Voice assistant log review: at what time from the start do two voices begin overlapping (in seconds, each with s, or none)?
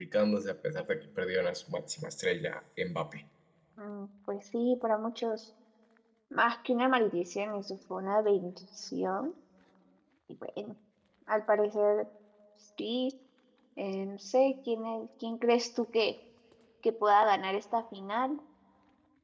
none